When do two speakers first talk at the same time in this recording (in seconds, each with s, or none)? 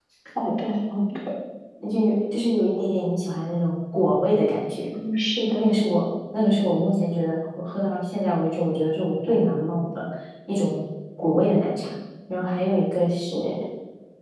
none